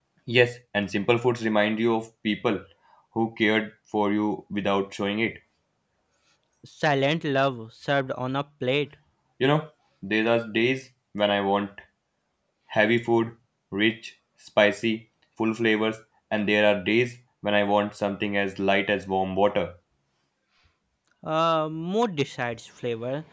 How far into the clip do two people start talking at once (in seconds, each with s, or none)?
none